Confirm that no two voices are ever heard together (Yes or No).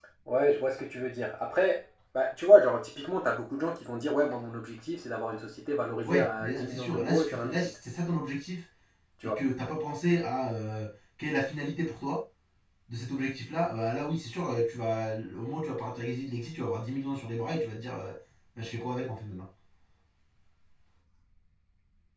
No